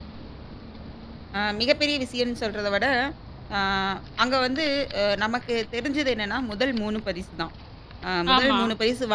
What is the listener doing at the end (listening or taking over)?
listening